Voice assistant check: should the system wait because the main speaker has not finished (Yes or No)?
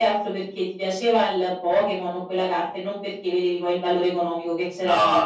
No